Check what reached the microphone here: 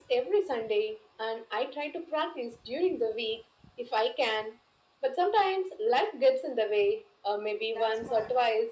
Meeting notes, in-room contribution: present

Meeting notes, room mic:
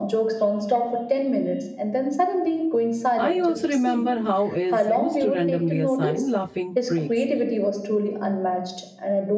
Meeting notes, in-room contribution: present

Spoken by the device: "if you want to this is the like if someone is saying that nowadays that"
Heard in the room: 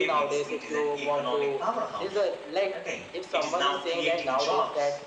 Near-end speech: present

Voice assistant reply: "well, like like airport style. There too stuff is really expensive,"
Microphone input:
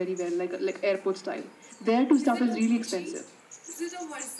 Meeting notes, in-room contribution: present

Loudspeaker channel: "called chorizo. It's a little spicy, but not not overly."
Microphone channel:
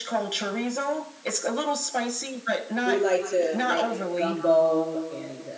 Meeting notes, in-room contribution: present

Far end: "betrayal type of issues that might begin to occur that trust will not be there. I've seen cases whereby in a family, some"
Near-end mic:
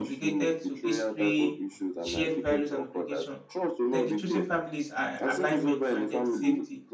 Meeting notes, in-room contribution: present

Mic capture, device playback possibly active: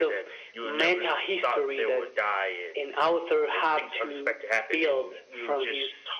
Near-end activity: none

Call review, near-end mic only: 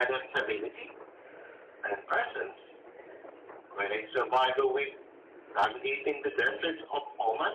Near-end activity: none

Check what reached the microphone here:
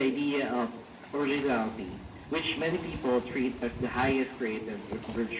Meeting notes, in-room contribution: none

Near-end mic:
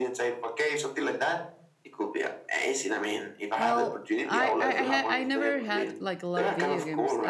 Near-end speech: present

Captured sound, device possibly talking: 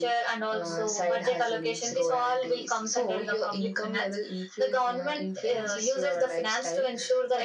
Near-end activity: none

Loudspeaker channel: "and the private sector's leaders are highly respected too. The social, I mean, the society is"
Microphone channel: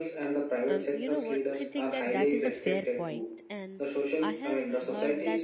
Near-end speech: present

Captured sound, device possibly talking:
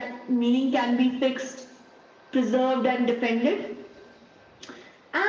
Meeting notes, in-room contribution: none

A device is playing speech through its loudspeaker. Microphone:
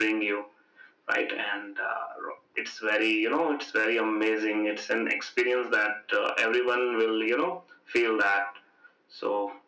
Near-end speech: none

